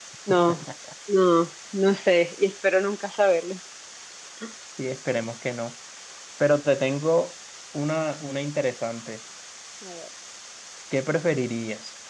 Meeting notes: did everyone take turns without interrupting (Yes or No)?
Yes